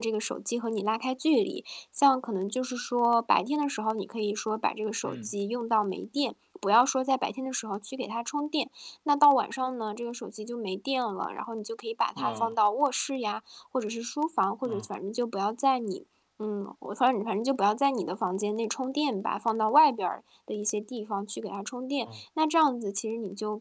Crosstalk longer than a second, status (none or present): none